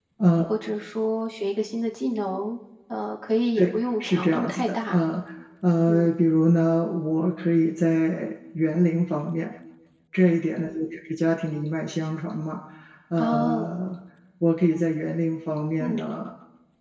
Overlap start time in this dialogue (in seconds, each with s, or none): 3.6 s